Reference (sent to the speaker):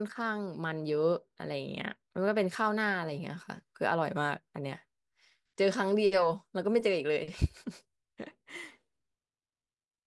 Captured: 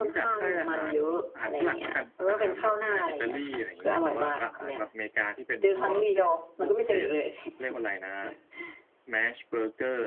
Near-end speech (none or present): present